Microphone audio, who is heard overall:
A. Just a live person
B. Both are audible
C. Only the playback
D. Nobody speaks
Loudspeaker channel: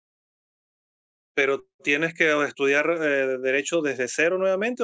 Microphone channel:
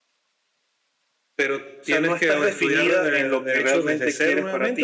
B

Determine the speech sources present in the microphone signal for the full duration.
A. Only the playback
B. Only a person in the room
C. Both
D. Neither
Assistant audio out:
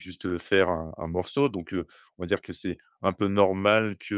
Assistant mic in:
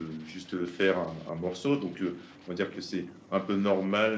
A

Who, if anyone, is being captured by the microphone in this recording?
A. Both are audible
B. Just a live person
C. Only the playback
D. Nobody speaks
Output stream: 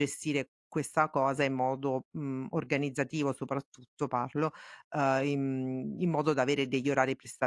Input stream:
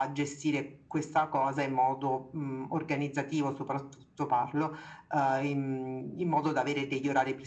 C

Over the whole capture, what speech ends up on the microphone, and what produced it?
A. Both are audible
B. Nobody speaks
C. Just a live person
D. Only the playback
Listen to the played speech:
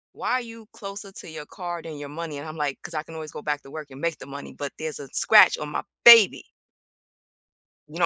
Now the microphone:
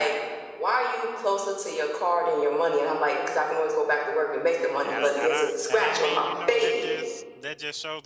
A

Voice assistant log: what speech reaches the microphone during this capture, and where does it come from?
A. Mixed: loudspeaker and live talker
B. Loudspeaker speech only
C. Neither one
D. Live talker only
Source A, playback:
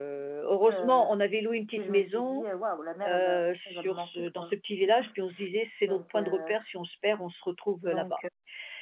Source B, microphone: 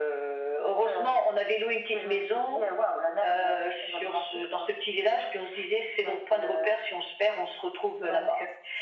B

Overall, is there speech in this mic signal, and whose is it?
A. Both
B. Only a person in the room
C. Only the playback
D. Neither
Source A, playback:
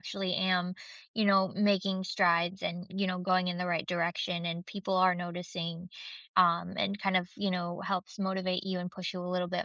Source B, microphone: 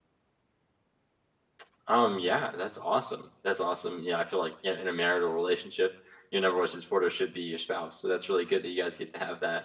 B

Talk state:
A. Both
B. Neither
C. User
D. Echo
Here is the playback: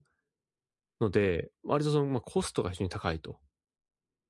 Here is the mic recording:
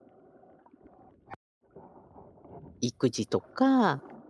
C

